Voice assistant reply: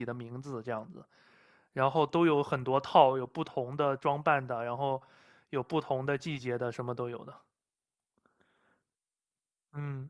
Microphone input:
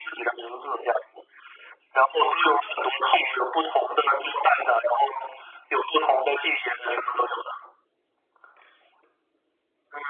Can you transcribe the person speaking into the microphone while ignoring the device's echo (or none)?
none